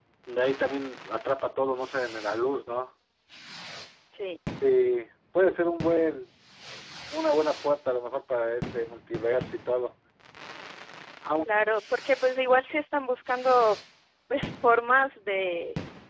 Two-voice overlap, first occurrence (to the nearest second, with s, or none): none